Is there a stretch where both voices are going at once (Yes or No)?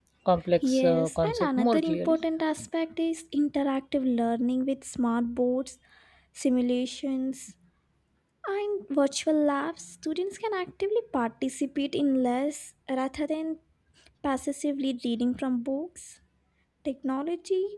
Yes